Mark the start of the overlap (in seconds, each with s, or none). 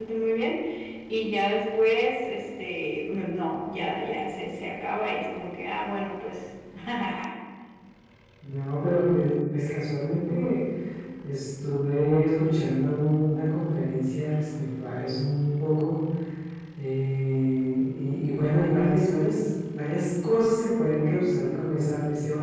none